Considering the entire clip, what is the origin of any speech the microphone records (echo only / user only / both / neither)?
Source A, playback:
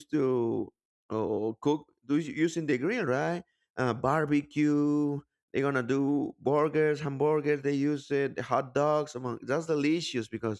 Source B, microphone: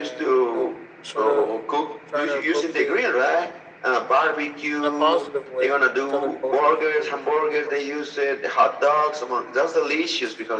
both